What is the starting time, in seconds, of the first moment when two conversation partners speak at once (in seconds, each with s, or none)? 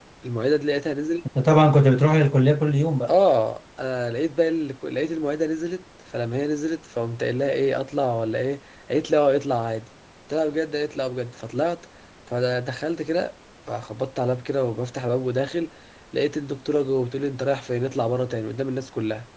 none